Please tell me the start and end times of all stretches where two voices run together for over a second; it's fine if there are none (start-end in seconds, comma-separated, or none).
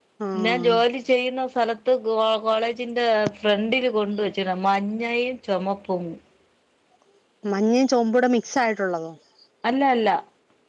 none